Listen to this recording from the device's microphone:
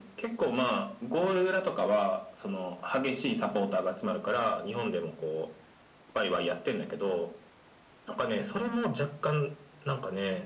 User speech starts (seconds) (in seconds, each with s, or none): none